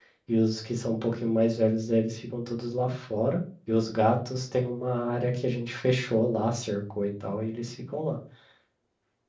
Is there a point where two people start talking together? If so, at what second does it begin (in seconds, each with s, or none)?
none